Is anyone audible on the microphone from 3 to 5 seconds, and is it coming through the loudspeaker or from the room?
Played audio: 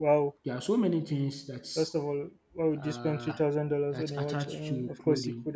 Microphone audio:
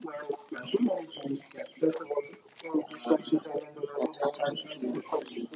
echo only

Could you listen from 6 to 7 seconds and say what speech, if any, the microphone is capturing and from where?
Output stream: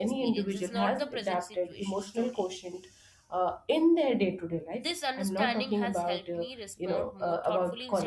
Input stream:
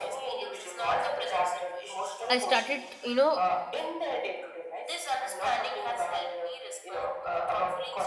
echo only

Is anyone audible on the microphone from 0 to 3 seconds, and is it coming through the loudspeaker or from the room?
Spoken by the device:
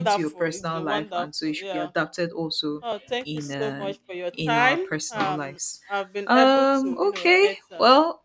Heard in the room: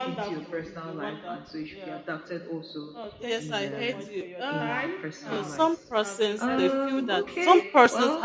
echo only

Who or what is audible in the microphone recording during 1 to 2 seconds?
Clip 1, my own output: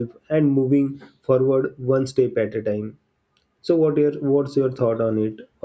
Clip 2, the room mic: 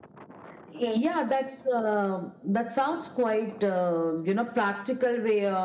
user only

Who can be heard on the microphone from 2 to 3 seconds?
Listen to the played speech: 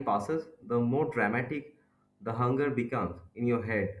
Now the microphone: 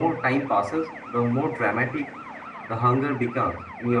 echo only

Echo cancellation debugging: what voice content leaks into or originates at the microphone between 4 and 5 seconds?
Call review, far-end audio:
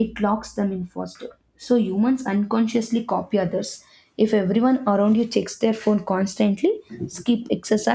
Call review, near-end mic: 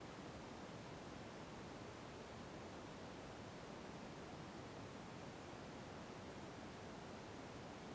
neither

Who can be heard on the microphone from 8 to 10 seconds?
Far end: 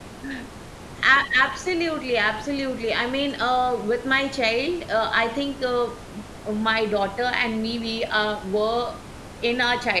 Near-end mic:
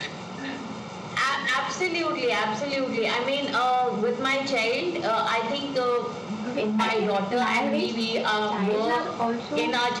both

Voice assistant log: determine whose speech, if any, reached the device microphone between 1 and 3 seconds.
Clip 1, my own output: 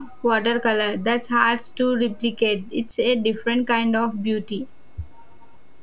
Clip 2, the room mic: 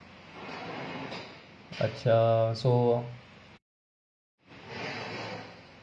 user only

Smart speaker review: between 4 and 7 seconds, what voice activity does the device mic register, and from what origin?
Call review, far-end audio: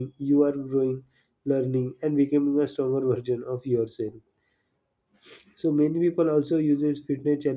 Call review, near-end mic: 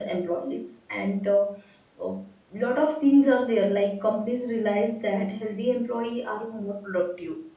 user only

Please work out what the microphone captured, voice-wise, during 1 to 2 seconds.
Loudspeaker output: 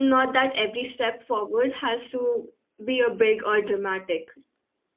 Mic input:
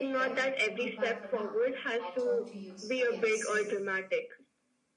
both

